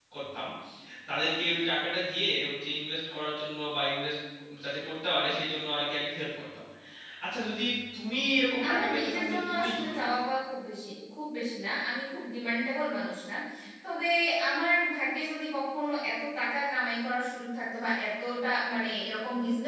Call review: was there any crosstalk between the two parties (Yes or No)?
Yes